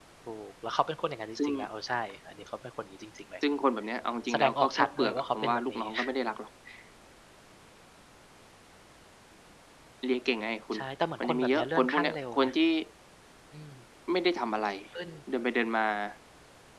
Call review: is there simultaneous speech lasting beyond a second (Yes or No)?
Yes